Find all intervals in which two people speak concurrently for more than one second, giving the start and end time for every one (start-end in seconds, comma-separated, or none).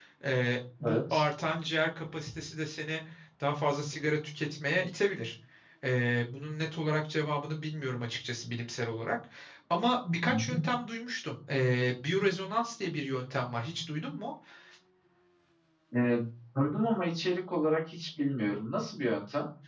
none